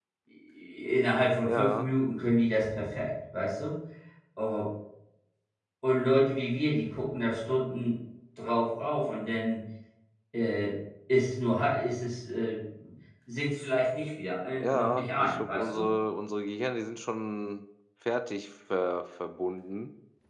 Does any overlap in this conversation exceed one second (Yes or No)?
Yes